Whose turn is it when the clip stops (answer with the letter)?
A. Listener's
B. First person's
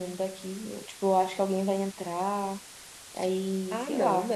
A